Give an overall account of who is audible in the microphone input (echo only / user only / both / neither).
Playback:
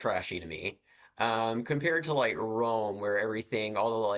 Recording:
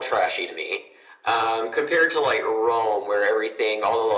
echo only